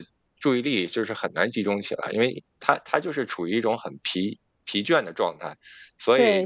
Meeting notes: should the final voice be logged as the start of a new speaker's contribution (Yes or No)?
Yes